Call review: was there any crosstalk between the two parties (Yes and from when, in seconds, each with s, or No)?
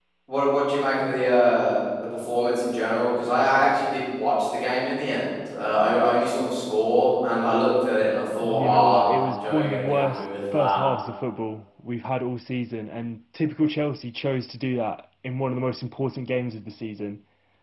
Yes, from 8.4 s